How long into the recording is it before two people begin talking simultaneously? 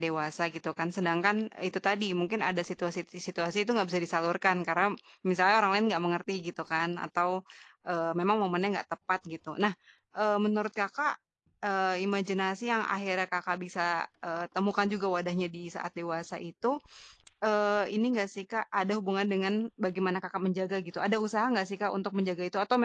none

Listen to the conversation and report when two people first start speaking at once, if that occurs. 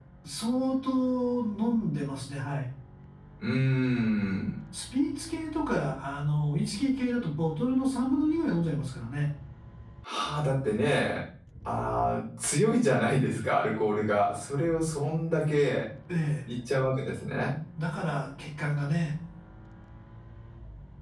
none

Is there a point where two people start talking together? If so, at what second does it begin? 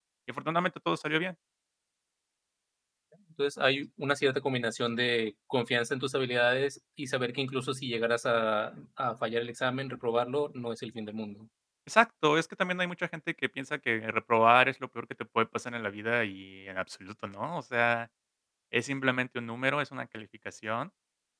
none

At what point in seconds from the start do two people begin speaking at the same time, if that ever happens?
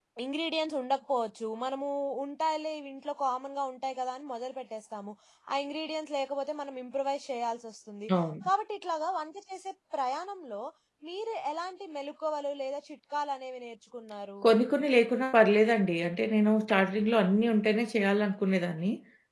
none

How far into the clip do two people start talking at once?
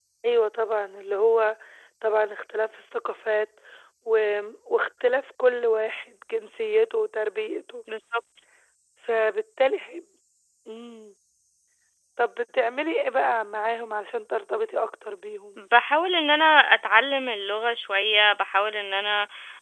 none

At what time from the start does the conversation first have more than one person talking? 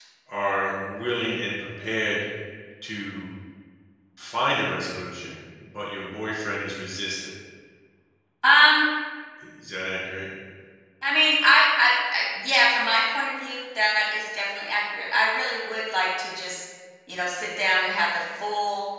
none

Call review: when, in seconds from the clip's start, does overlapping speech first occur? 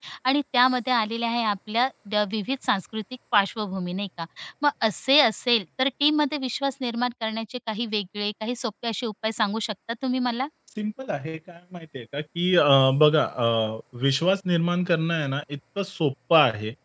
none

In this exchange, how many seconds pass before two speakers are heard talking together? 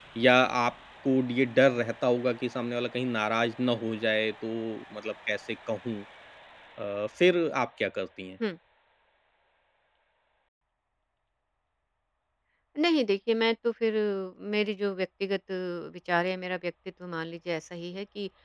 none

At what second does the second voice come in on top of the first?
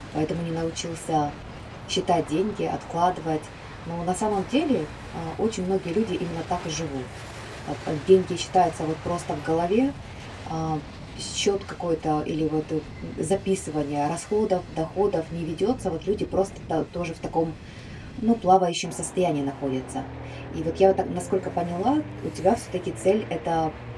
none

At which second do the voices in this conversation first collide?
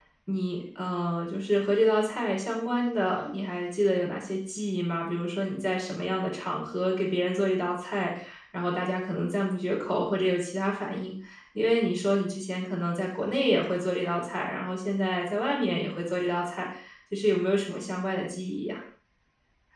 none

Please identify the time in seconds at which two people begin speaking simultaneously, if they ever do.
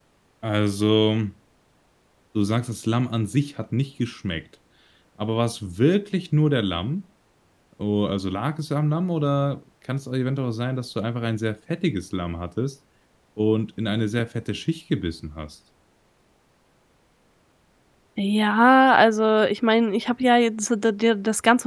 none

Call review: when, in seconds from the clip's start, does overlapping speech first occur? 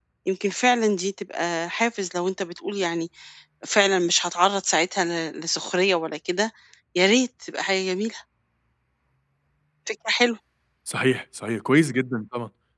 none

